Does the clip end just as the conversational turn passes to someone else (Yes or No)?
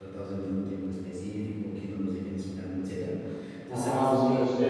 Yes